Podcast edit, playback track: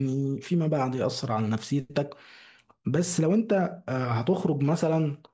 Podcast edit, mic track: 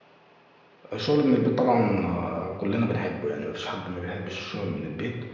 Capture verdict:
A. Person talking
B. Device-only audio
A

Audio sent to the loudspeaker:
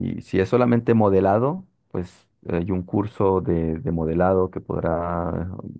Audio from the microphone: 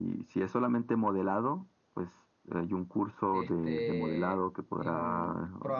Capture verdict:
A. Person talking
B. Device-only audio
A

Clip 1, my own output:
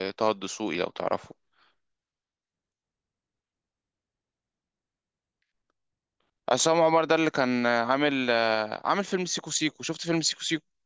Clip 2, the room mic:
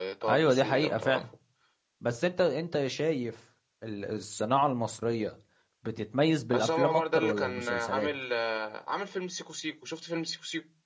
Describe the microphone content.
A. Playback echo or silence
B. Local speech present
B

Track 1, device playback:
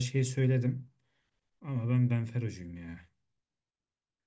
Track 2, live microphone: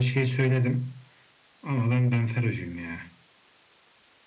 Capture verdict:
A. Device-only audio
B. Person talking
A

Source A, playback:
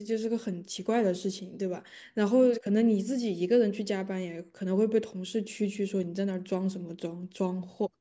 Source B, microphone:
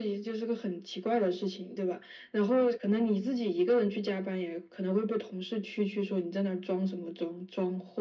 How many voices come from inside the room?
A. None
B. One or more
A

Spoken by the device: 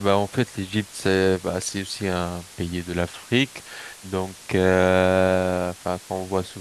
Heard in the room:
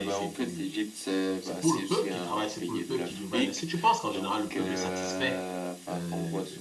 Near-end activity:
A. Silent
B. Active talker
B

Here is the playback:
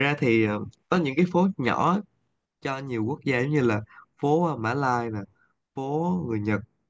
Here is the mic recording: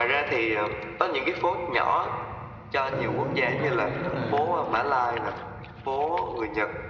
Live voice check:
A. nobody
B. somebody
B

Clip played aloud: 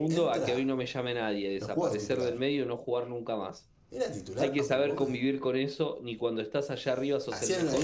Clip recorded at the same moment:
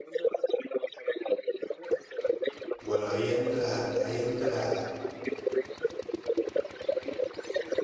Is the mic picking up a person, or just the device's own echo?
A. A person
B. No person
A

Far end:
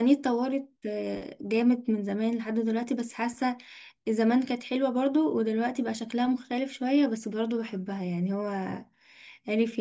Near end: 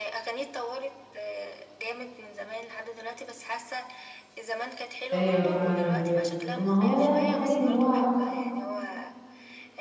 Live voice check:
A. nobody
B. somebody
B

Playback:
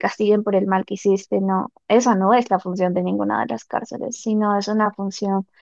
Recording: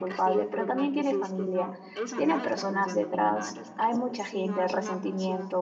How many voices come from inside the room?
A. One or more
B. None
A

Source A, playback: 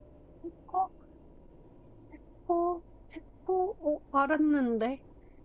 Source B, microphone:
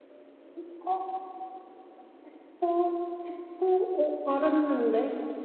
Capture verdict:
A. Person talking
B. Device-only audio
B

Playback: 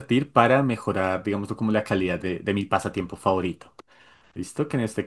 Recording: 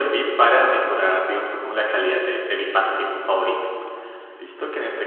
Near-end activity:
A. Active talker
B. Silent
B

